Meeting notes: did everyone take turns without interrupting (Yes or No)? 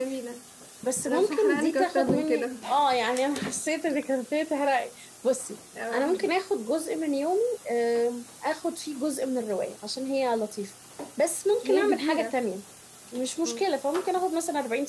No